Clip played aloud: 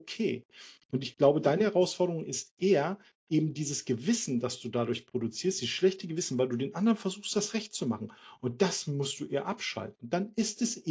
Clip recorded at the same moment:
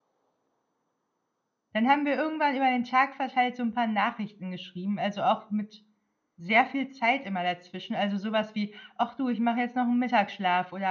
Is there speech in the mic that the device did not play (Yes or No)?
Yes